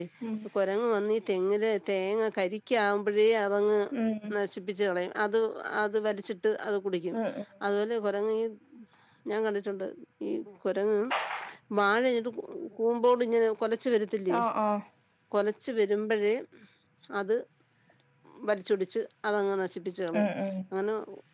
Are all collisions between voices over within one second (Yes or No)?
Yes